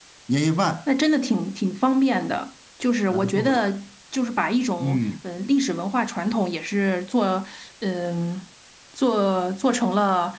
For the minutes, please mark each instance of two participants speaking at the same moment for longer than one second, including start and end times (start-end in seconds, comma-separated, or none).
none